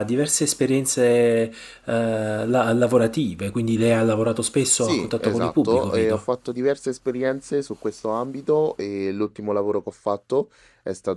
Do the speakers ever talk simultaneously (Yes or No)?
Yes